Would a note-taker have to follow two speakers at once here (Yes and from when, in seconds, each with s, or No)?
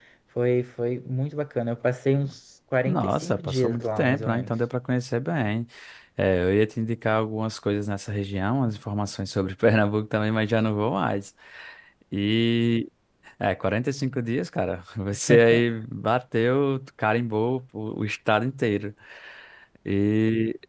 Yes, from 2.9 s